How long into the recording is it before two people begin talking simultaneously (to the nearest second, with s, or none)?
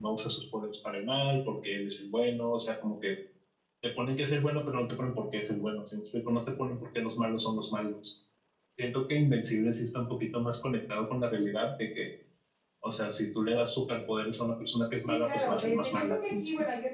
15 s